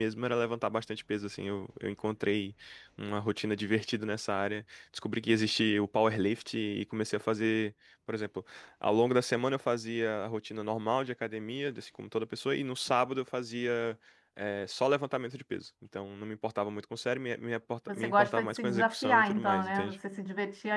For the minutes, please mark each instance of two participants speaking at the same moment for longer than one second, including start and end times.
17.9-19.9

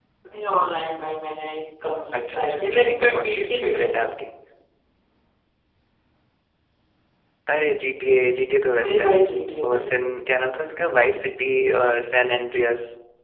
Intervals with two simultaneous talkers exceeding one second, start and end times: 2.2-4.2

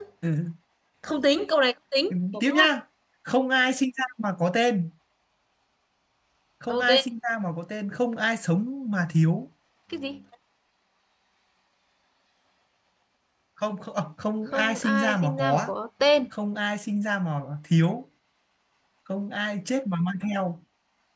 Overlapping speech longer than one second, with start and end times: 14.5-15.7

